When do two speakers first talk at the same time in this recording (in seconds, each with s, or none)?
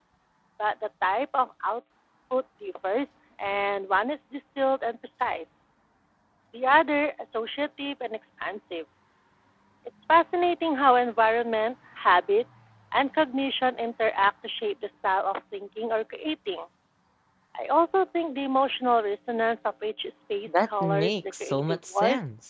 20.5 s